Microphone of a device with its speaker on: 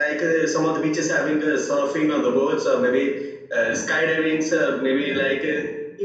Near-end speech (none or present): present